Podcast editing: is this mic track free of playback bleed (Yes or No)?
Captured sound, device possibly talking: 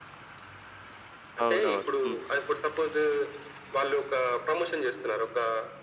No